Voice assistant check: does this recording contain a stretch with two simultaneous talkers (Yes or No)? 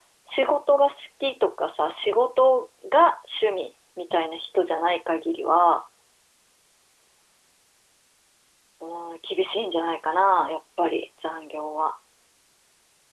No